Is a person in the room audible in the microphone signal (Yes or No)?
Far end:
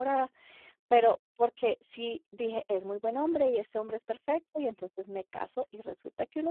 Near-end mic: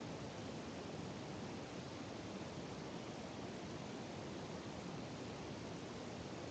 No